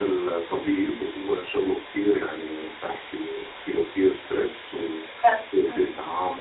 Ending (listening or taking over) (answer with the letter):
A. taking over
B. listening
B